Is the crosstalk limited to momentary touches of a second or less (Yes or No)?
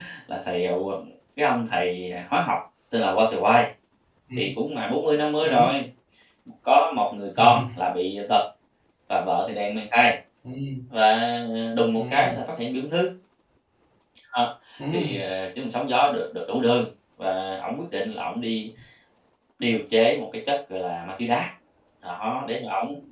Yes